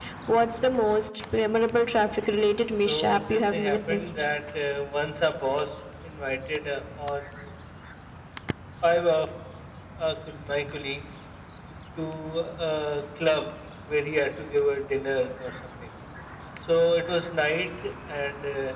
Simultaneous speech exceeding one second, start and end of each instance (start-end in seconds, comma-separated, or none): 2.8-4.1